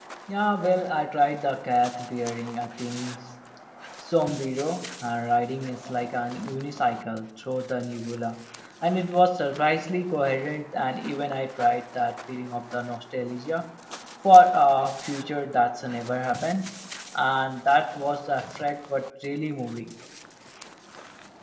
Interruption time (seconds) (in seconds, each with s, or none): none